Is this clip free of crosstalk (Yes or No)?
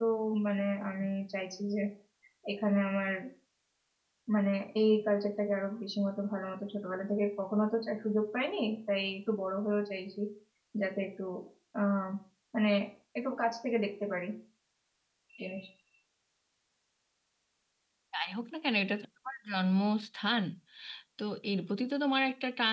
Yes